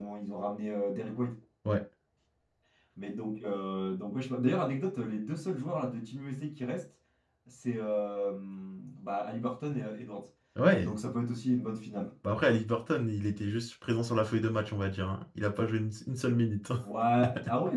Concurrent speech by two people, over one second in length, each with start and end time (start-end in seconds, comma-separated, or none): none